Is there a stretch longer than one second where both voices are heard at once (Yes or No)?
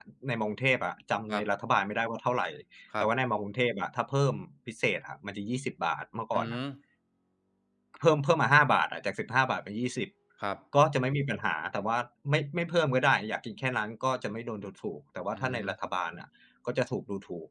No